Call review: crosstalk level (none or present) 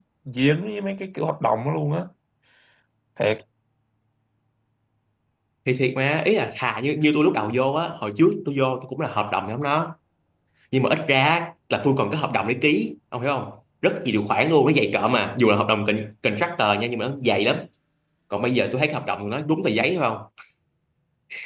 none